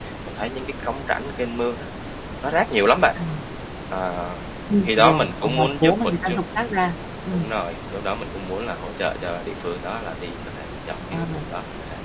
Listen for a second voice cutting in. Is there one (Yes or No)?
Yes